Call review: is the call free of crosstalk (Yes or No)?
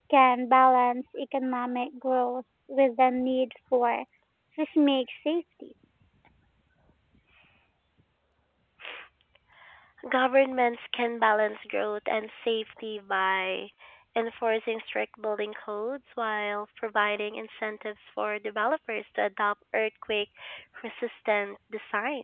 Yes